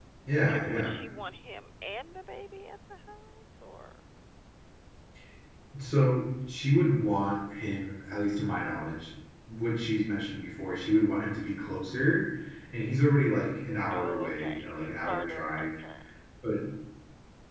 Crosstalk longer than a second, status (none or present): present